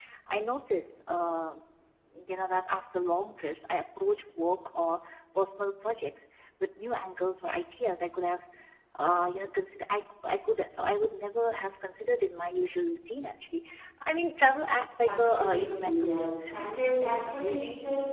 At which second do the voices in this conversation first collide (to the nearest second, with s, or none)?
15 s